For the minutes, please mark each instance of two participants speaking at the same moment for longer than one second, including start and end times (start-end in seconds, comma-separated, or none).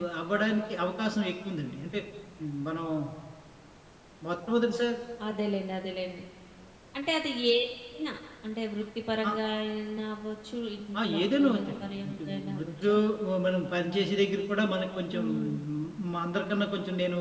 11.1-12.9